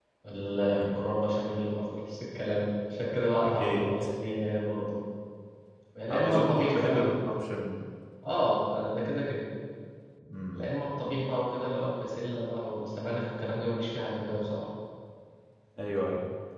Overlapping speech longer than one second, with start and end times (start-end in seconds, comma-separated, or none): 6.1-7.3